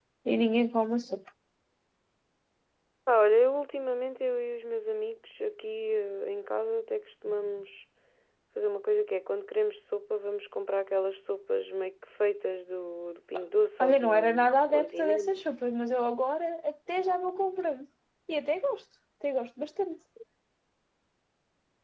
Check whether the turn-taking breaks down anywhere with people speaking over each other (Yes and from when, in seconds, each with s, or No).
Yes, from 13.8 s